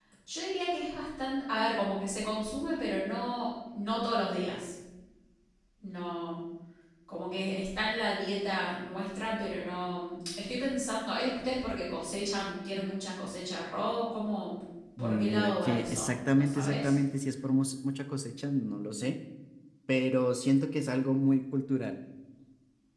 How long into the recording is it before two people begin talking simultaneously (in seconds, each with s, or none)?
15.0 s